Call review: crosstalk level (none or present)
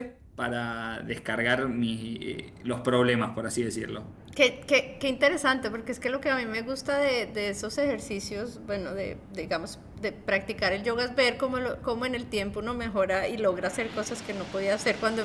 none